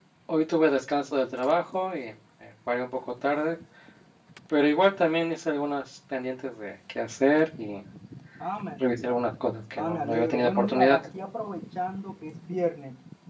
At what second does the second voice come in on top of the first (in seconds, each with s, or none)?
9.8 s